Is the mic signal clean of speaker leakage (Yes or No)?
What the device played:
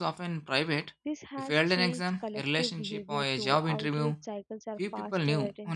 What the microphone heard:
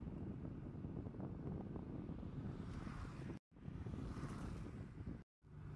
Yes